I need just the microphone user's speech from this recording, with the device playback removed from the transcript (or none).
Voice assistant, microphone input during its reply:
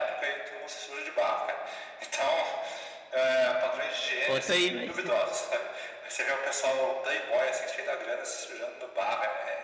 Conta aí, vai.